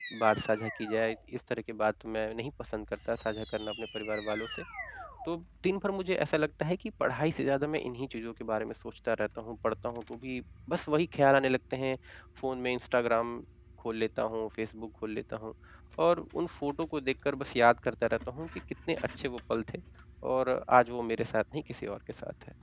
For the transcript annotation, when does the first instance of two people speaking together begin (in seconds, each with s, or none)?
none